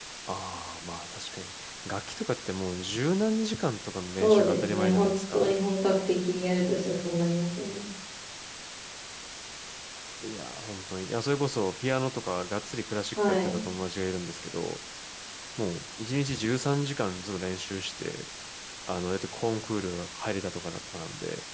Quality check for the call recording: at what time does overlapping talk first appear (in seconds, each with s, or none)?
4.2 s